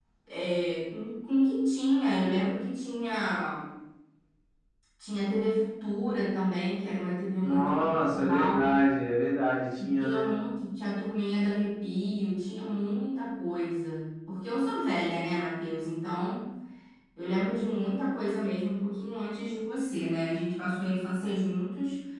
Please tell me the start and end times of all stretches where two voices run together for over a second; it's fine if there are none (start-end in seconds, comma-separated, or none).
7.4-8.7